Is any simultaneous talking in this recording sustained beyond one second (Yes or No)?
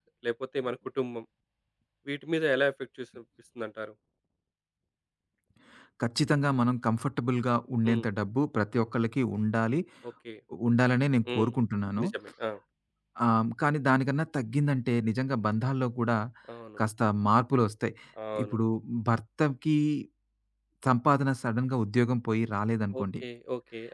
No